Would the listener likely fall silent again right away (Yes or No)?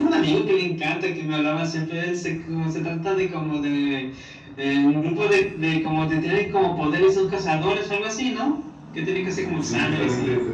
No